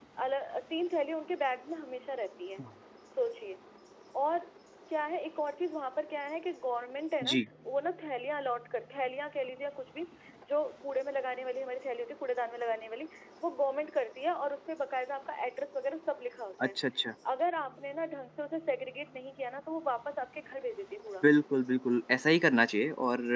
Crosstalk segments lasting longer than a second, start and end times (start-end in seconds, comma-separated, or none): none